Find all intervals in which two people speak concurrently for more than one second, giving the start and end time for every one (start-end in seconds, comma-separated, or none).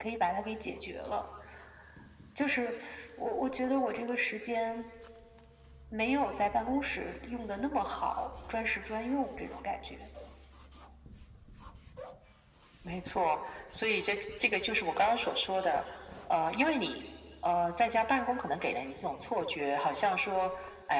none